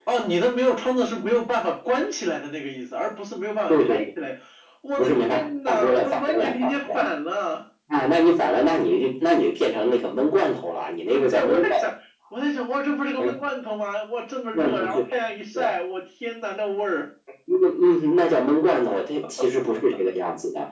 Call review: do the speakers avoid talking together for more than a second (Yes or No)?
No